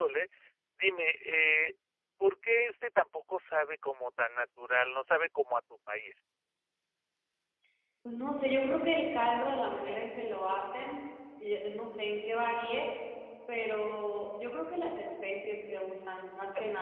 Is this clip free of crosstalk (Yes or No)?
Yes